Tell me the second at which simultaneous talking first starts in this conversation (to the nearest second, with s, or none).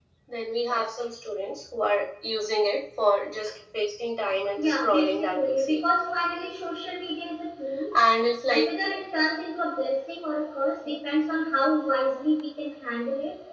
5 s